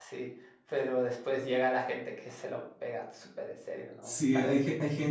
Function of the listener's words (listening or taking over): taking over